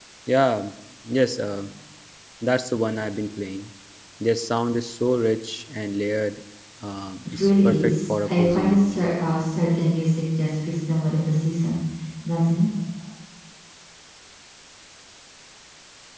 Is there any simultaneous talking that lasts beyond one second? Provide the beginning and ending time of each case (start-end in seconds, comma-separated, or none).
7.2-9.0